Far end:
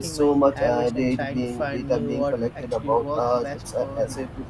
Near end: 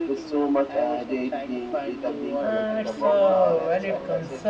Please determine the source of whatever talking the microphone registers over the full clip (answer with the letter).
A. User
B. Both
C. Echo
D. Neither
B